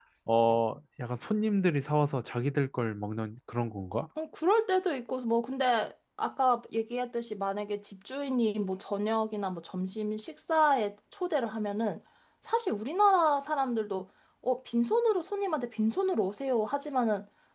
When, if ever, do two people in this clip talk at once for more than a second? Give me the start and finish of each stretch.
none

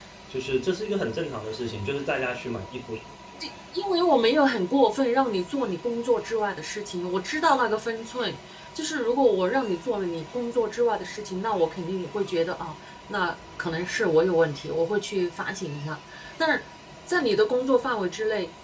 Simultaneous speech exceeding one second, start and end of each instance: none

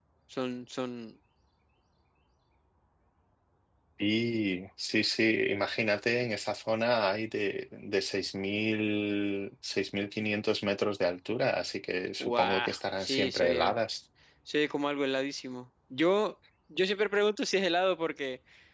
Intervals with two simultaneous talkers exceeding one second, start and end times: 12.2-13.8

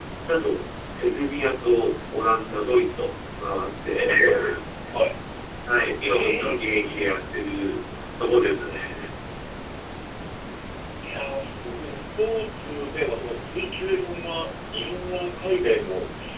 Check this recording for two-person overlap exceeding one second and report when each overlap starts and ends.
none

